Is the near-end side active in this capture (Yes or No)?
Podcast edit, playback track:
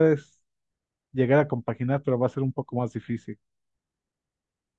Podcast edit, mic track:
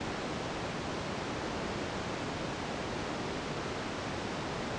No